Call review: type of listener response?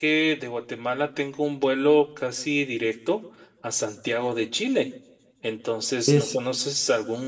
listening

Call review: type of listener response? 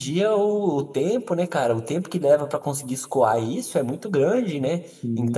listening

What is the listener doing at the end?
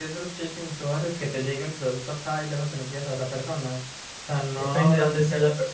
taking over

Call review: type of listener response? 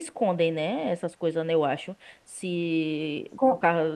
taking over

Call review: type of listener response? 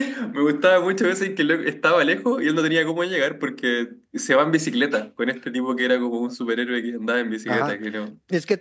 taking over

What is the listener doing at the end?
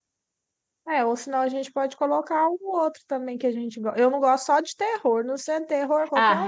taking over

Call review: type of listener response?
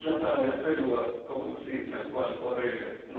taking over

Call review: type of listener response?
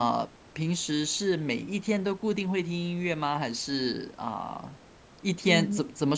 listening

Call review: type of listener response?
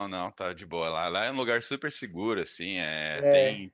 listening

